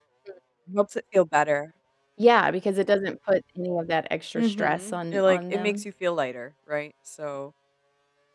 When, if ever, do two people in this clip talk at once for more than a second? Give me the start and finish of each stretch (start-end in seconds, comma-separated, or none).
4.3-5.8